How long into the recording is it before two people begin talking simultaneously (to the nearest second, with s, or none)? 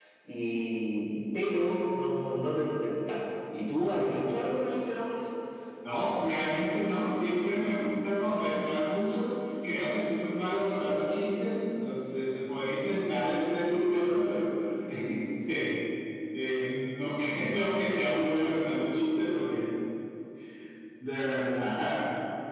none